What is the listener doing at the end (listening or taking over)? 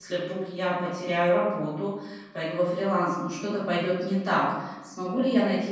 listening